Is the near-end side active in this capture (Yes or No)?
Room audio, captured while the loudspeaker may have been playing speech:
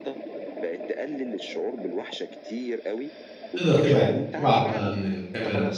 Yes